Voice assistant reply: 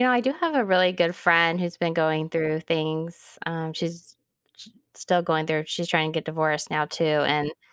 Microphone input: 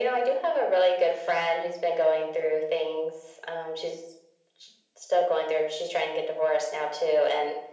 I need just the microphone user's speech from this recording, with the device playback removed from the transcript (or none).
none